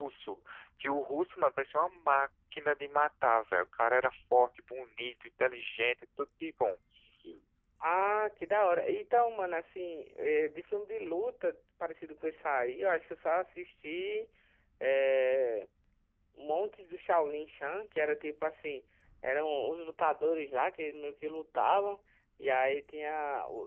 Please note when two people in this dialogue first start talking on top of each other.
none

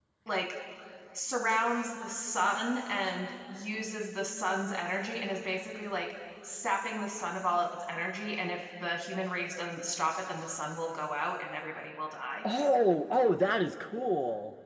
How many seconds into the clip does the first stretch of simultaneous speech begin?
none

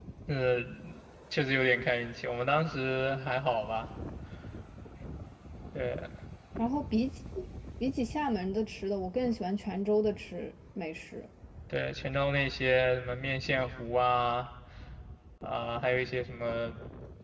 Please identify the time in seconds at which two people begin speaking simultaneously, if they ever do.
none

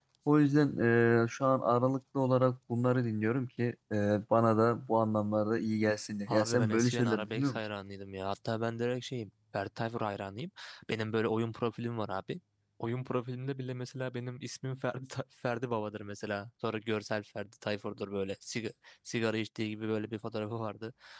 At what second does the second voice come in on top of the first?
6.3 s

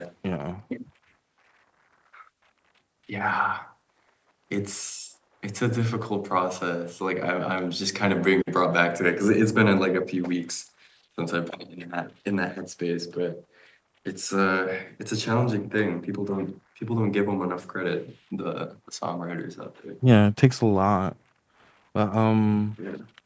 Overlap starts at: none

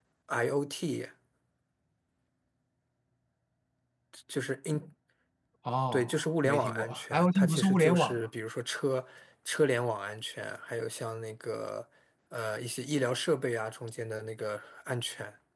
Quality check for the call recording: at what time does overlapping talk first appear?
5.9 s

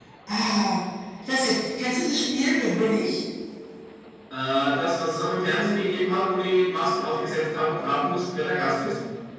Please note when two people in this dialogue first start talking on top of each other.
none

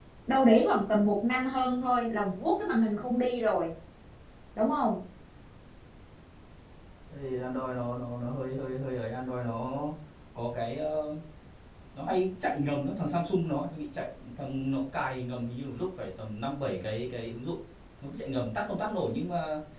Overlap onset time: none

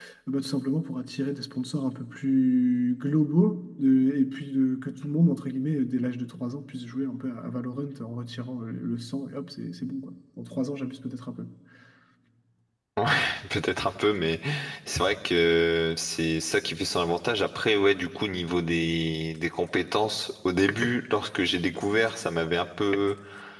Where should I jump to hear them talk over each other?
none

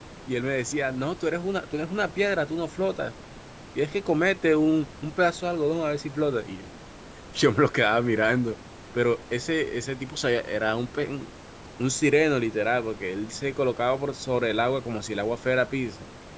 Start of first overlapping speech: none

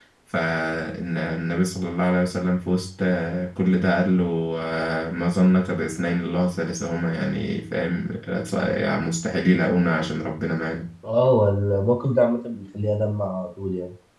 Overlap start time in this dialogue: none

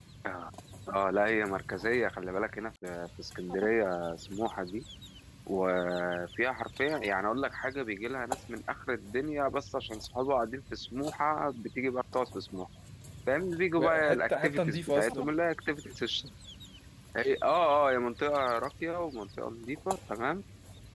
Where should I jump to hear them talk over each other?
13.8 s

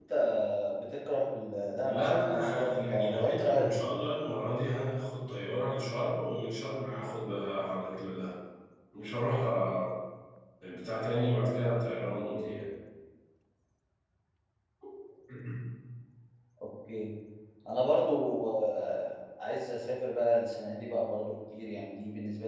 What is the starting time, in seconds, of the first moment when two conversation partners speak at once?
1.9 s

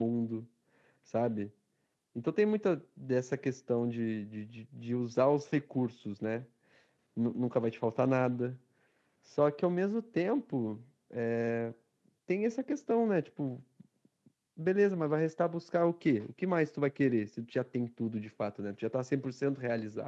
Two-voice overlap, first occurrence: none

